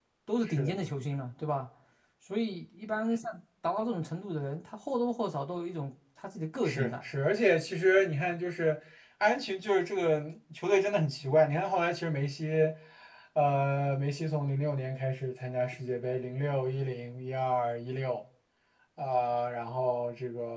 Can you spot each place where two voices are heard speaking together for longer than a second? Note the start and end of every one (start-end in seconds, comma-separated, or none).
none